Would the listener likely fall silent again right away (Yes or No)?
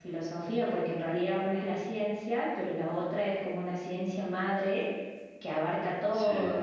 Yes